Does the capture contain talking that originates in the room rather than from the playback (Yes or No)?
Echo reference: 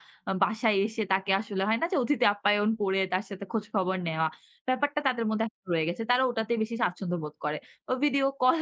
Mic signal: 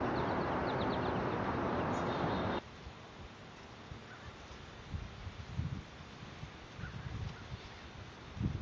No